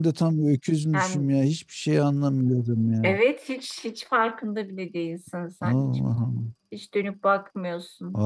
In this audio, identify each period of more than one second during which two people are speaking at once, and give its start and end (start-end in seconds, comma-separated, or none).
none